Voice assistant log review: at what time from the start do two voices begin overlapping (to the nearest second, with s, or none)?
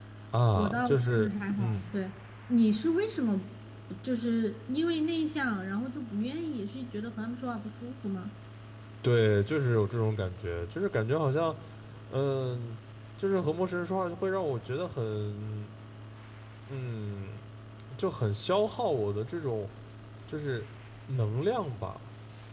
1 s